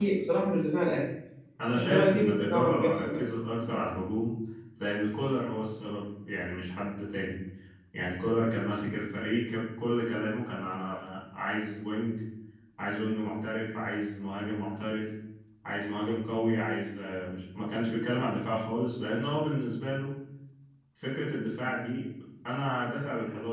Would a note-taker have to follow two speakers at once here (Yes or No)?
Yes